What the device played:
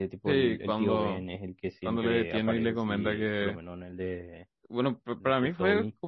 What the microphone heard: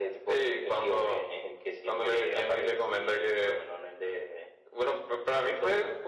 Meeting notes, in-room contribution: none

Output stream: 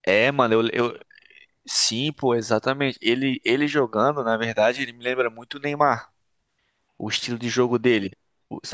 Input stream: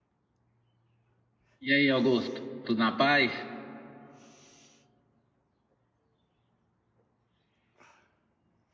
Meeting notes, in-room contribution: present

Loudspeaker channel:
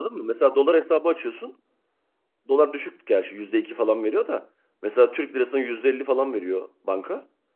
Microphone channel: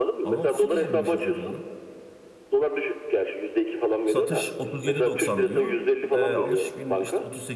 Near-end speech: present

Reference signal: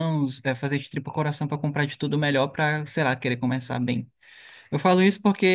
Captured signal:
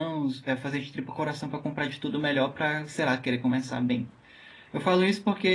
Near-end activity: none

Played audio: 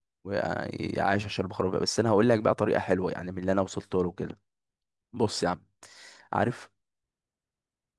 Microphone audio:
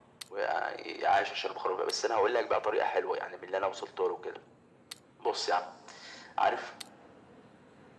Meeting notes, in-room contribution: none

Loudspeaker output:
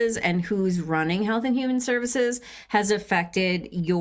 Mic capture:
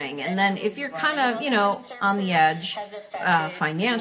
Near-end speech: present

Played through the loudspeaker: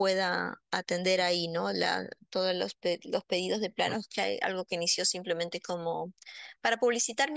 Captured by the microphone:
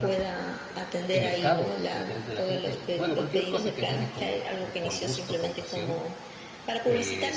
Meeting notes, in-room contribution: present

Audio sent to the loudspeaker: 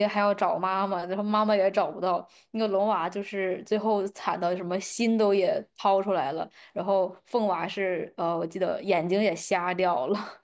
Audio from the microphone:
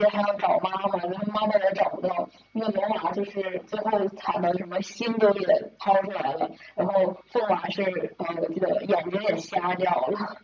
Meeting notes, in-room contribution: none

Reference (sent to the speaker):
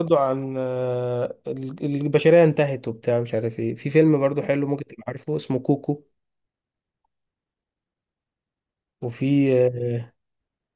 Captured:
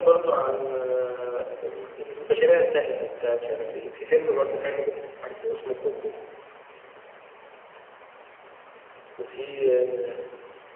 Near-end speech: none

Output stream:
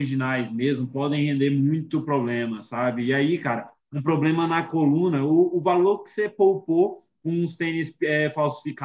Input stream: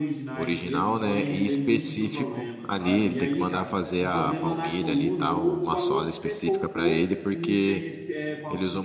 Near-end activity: present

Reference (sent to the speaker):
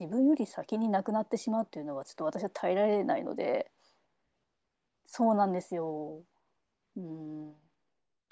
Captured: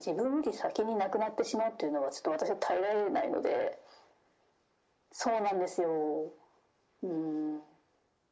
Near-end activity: none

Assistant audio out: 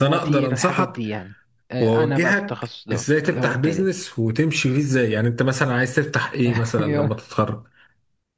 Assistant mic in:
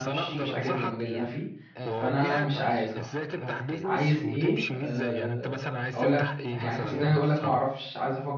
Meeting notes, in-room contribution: present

